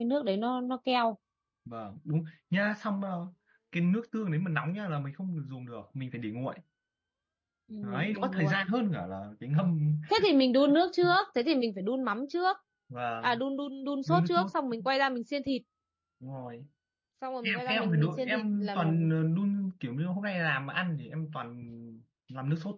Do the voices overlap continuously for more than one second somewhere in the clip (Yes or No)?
Yes